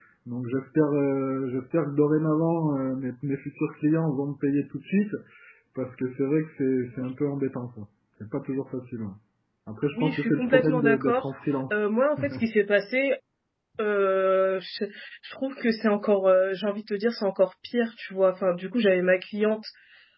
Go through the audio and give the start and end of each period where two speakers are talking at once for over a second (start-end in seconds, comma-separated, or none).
10.0-11.2